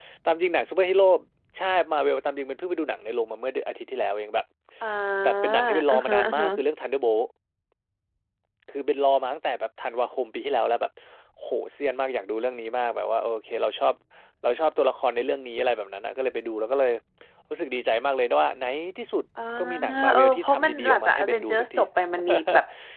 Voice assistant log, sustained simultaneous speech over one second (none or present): present